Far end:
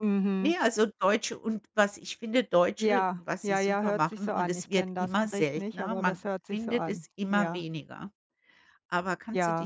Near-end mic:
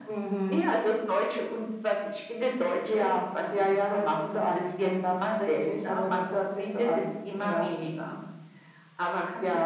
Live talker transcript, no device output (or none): none